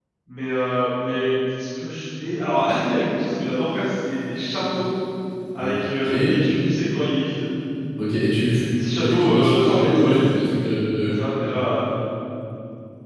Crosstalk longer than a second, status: present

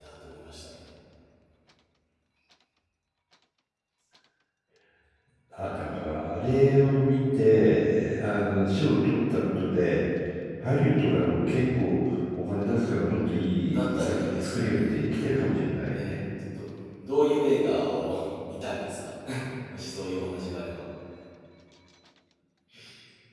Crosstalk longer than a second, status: present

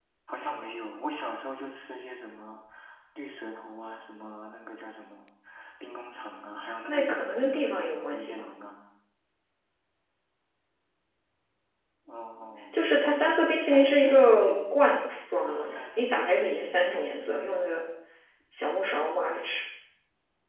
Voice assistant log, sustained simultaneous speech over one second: present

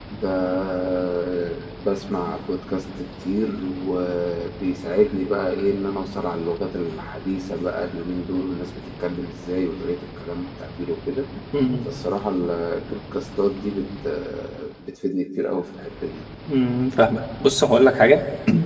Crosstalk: none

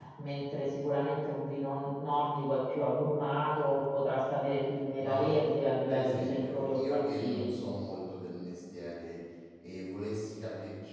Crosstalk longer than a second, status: present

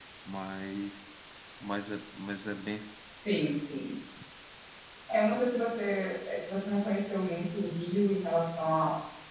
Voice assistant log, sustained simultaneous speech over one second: none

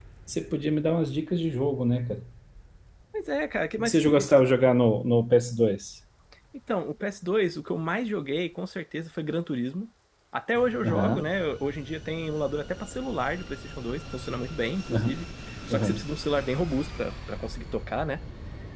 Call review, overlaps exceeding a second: none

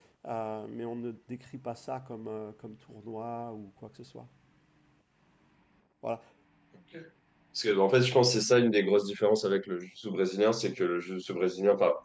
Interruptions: none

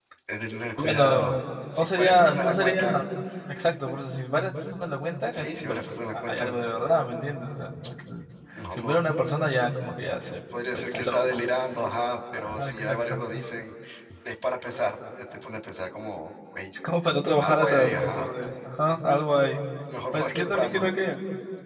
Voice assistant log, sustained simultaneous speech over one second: present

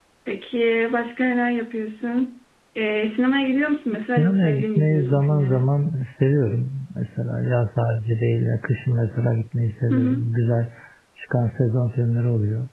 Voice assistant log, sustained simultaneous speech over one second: present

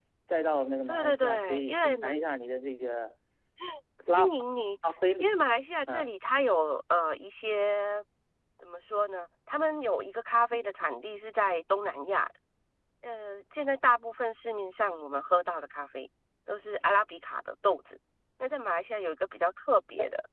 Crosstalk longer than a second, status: present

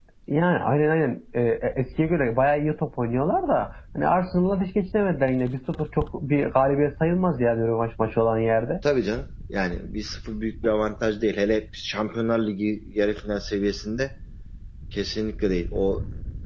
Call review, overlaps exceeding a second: none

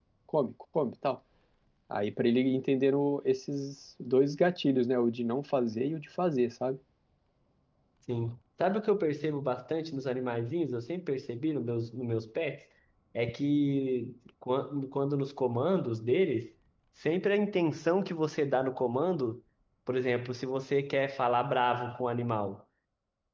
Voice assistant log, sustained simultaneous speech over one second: none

